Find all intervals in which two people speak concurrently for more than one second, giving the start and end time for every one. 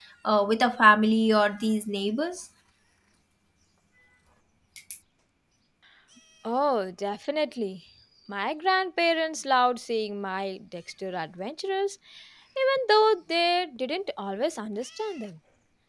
none

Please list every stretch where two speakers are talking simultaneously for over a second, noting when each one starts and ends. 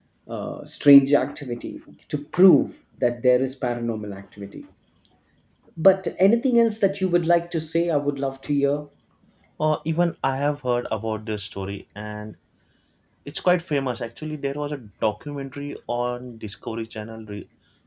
none

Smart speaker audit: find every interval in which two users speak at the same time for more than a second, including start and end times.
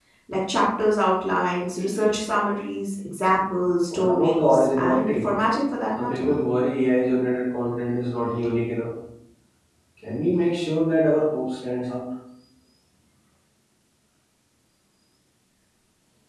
3.9-5.3

